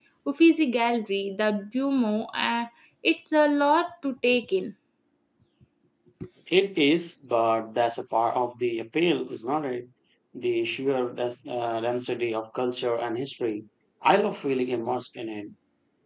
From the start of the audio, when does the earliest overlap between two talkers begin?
none

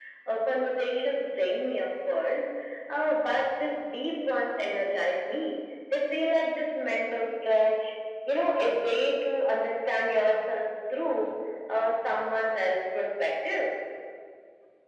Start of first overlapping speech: none

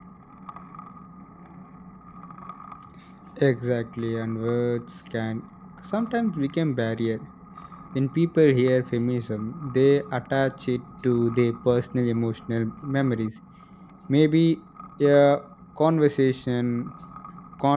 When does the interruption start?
none

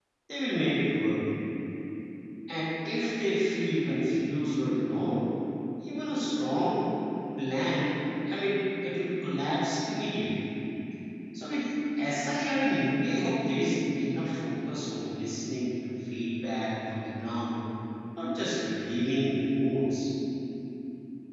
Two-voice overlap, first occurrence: none

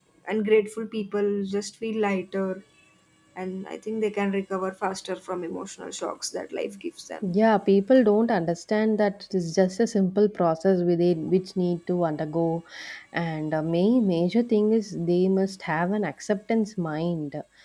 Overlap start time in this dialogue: none

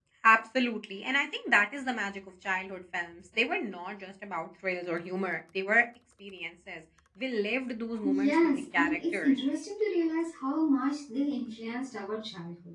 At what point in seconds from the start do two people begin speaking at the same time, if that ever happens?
8 s

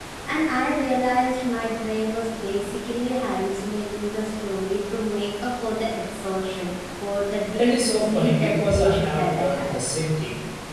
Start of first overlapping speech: 8 s

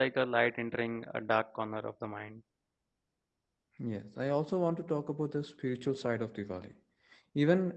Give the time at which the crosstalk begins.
none

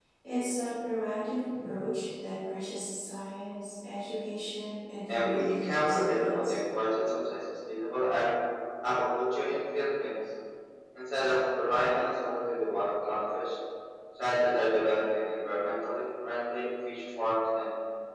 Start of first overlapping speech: 5 s

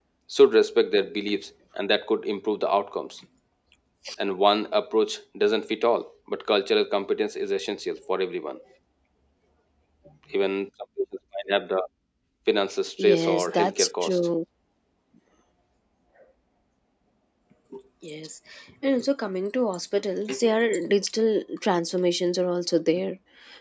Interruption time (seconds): 13 s

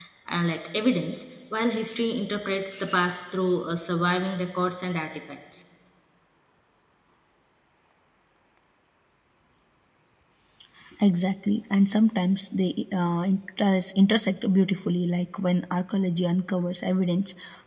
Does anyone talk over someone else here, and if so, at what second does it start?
none

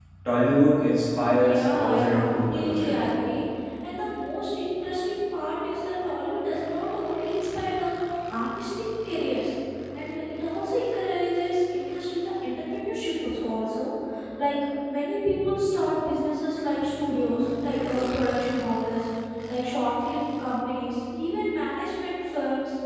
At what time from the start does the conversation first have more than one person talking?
1 s

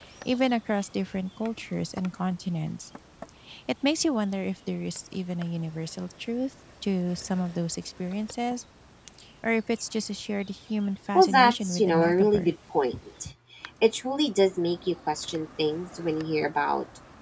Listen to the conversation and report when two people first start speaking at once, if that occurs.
11 s

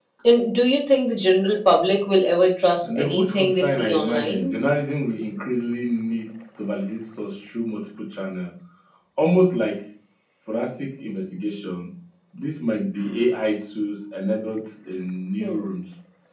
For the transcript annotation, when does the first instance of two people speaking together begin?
3 s

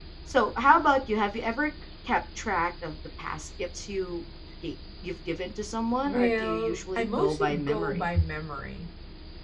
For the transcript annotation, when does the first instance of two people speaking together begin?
6 s

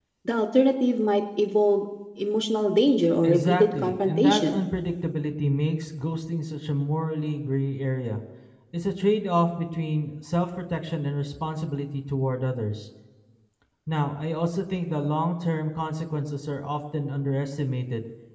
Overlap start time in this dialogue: 3 s

